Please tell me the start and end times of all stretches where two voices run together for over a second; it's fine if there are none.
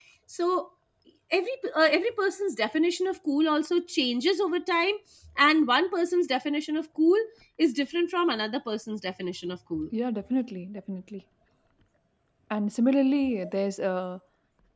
none

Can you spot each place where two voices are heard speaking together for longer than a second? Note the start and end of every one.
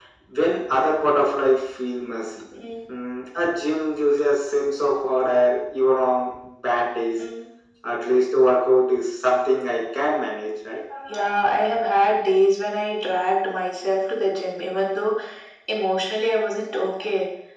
none

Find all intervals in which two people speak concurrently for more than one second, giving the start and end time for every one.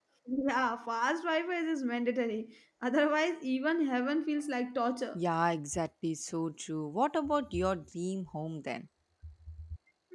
none

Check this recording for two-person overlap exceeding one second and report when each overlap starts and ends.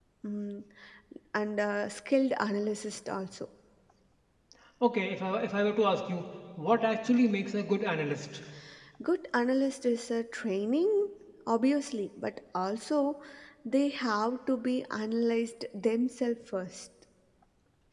none

